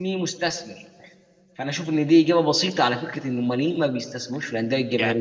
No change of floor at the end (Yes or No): No